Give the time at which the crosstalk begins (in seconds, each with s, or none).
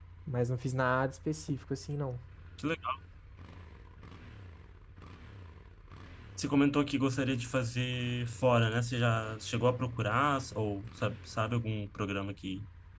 none